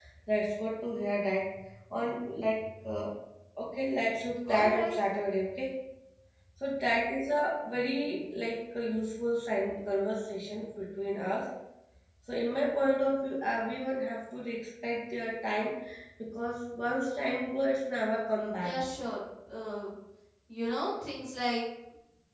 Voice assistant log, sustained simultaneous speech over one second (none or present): none